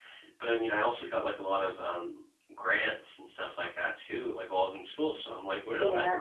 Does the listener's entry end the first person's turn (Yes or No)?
Yes